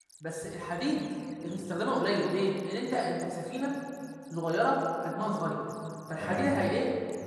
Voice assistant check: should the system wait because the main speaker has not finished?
Yes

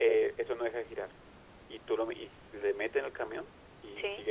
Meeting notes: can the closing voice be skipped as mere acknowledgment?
Yes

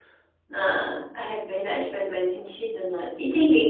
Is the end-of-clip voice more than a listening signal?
No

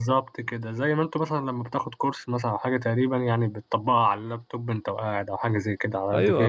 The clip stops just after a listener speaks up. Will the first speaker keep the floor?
No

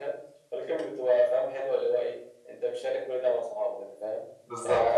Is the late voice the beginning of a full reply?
No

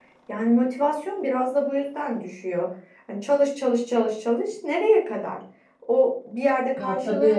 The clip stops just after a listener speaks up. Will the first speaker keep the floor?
Yes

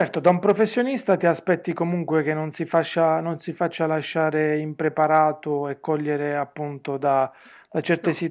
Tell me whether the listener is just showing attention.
Yes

